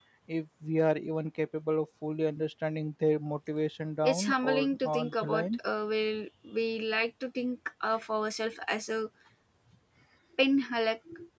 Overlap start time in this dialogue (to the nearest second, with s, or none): 4 s